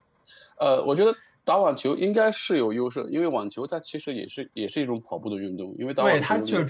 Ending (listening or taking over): taking over